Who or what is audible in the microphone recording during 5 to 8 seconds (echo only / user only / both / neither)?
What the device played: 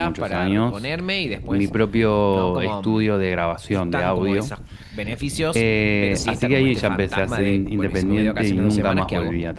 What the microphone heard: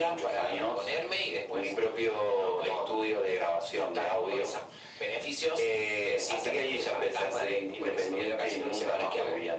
echo only